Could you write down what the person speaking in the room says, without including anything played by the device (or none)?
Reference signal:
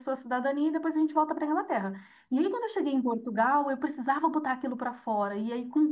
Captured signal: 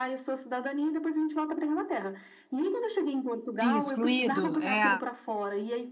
Sim, excluído. É.